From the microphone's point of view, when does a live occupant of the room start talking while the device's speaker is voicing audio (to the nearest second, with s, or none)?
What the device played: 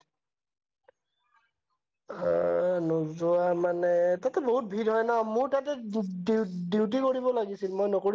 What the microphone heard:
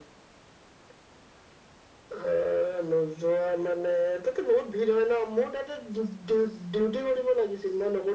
none